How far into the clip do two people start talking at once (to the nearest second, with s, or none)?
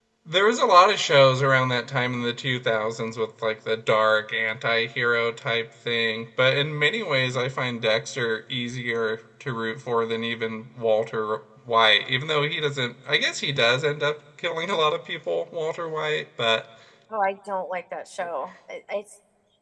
none